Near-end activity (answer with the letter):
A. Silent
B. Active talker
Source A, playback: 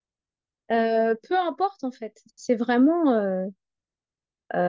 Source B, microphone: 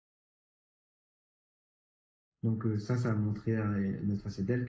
B